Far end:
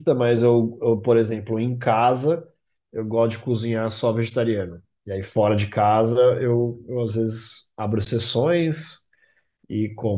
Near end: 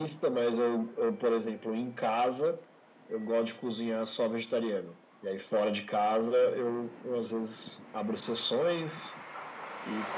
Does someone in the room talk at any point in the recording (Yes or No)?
No